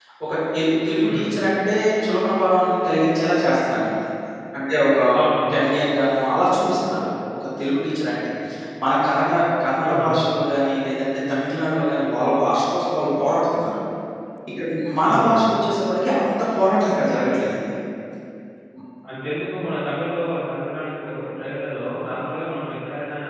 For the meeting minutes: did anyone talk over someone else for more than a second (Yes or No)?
No